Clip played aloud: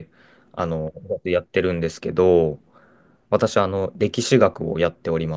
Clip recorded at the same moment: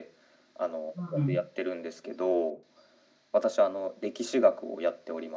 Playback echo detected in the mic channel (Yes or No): Yes